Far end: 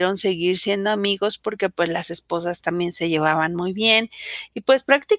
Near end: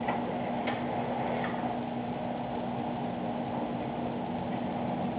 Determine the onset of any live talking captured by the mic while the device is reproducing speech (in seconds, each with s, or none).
none